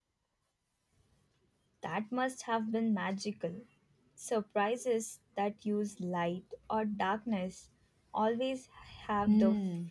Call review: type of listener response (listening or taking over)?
taking over